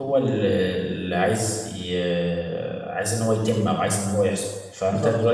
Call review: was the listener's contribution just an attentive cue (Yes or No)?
Yes